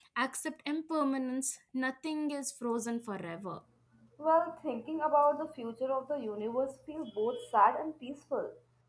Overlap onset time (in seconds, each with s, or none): none